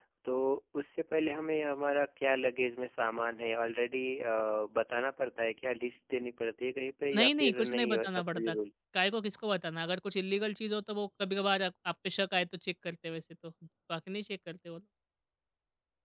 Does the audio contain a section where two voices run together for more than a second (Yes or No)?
Yes